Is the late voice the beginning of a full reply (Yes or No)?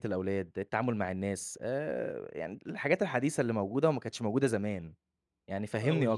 Yes